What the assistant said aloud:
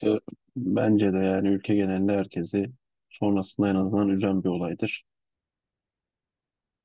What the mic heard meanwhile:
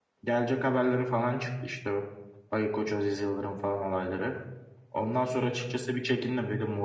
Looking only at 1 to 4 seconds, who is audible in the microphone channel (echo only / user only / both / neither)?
user only